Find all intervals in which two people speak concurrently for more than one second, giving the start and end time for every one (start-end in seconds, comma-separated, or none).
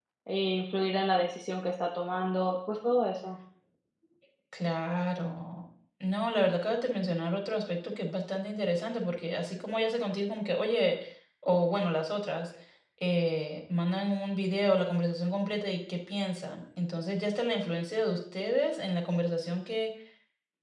none